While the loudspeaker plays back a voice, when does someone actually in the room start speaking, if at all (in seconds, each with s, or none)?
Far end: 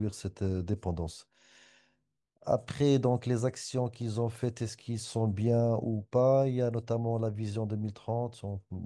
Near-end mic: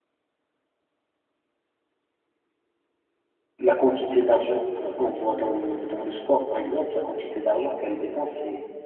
3.6 s